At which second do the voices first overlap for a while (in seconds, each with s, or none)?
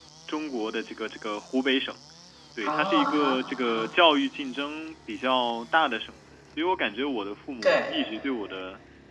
2.6 s